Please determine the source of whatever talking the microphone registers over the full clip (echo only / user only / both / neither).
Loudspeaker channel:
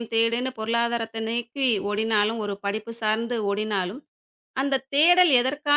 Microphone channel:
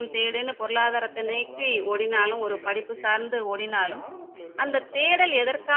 both